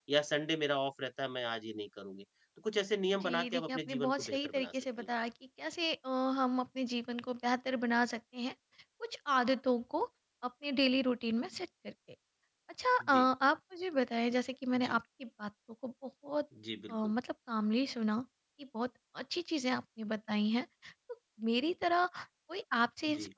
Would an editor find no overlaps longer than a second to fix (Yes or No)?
No